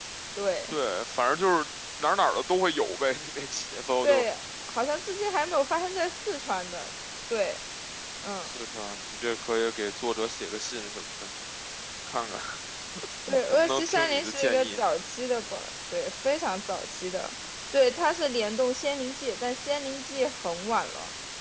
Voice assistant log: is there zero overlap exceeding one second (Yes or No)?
No